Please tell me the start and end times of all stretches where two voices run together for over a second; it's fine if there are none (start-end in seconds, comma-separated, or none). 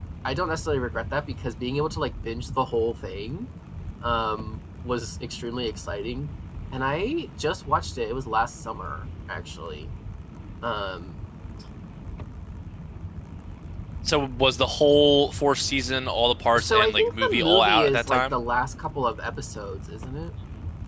16.6-18.3